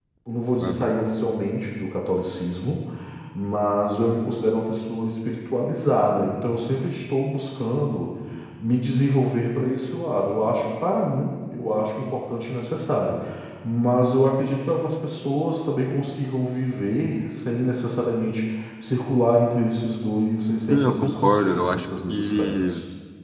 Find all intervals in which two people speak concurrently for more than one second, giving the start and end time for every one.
20.6-22.7

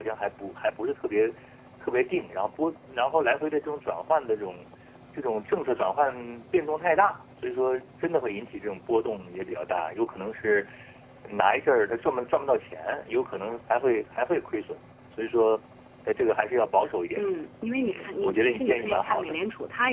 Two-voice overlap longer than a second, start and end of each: 17.8-19.4

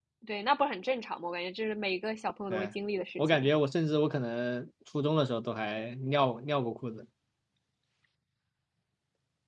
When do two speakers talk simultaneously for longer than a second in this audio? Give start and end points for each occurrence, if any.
none

